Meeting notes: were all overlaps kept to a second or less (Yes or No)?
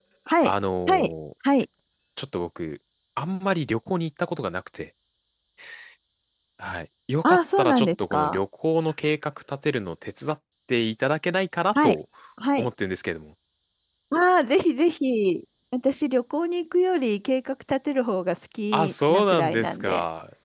No